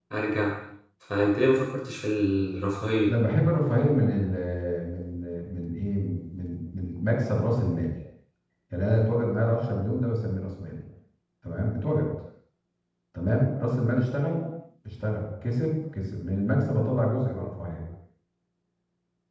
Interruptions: none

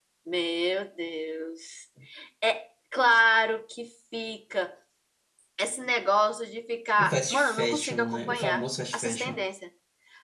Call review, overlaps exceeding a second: present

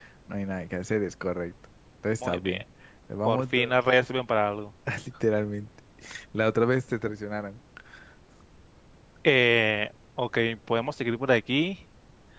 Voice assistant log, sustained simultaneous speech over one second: none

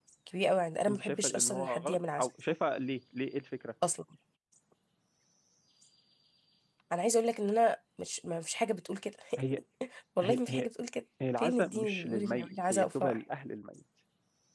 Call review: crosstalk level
present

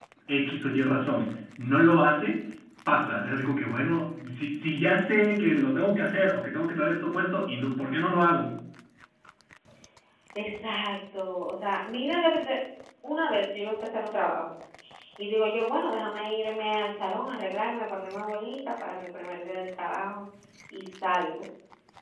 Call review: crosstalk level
none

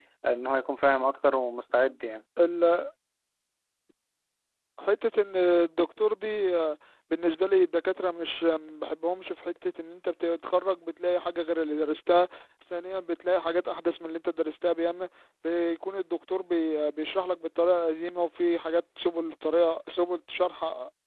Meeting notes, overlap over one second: none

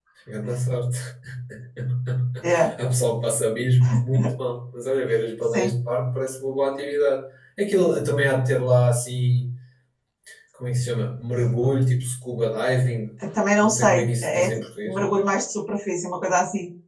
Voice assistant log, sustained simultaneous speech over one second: present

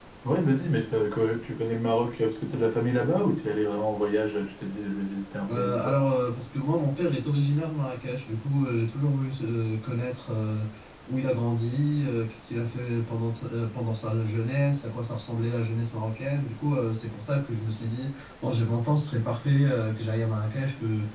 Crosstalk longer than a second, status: none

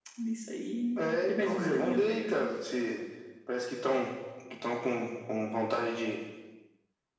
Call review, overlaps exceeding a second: present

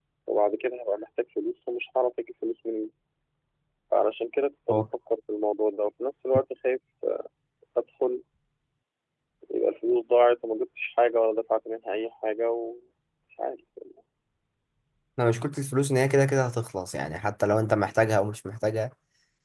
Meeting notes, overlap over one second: none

